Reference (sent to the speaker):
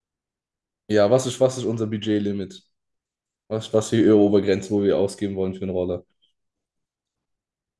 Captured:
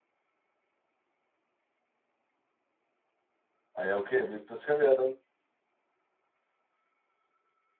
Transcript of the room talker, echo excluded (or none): ah ja, okay, wir, das können wir ja dann